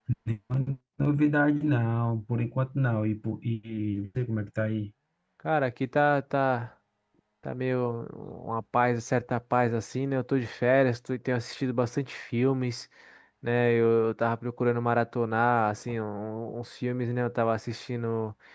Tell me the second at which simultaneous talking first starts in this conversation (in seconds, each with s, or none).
none